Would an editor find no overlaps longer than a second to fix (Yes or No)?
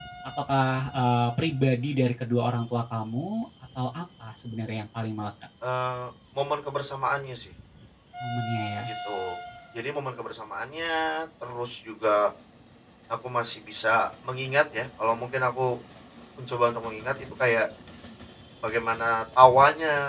Yes